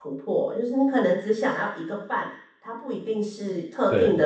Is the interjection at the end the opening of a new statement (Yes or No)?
No